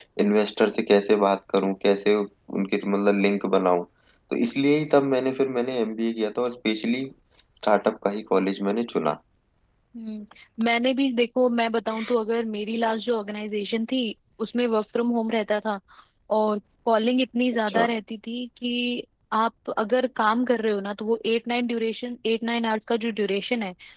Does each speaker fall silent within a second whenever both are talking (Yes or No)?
Yes